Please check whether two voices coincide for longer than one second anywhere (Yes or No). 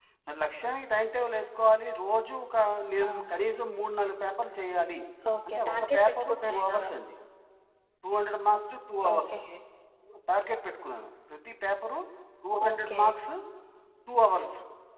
Yes